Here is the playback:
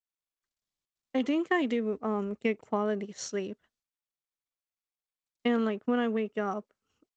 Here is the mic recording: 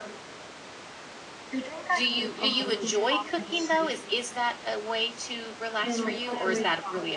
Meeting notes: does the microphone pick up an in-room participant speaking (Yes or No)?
Yes